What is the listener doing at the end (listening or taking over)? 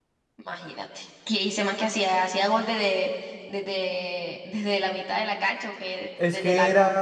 taking over